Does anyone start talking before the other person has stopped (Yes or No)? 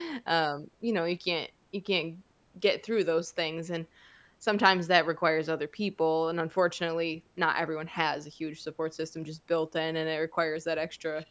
No